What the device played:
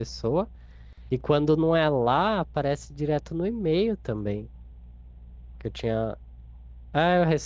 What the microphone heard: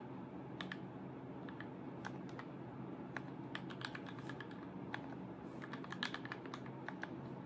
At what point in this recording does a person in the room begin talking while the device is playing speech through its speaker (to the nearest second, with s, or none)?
none